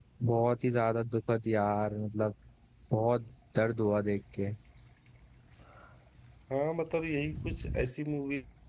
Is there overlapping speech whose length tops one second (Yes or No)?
No